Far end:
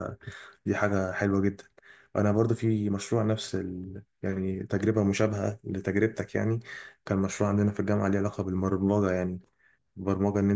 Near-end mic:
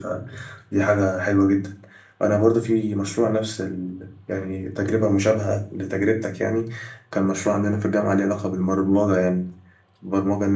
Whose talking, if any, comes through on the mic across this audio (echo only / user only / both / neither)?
echo only